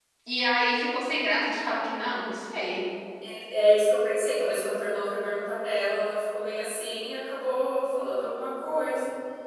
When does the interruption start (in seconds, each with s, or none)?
none